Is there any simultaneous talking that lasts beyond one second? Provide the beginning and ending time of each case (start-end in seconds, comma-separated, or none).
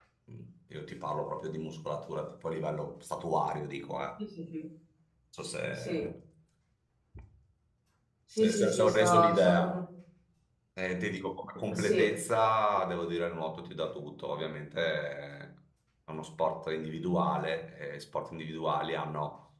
8.4-9.8